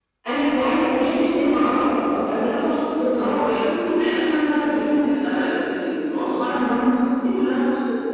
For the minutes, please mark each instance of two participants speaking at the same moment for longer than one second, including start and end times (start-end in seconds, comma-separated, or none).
none